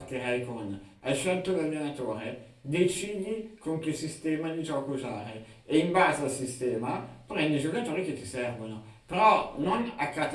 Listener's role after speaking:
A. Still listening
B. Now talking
A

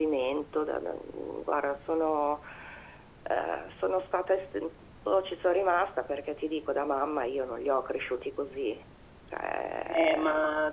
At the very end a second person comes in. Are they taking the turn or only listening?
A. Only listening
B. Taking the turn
B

